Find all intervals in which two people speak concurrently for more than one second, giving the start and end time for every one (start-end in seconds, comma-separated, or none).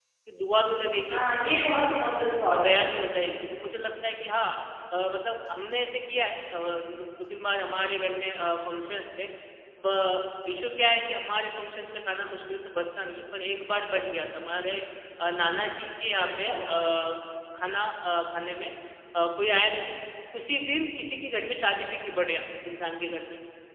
none